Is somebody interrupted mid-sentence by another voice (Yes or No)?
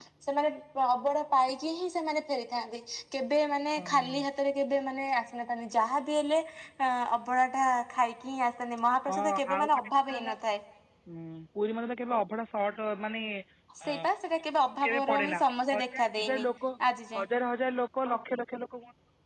Yes